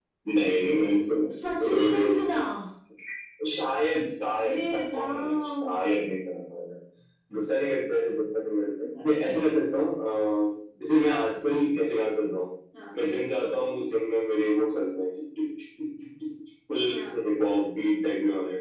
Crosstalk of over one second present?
Yes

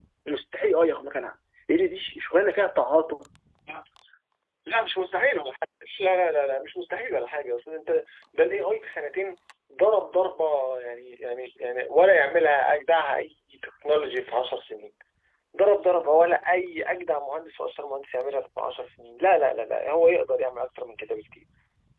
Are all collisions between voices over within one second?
Yes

